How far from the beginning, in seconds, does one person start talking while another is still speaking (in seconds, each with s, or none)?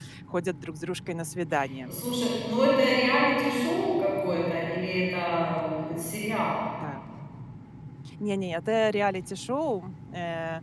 none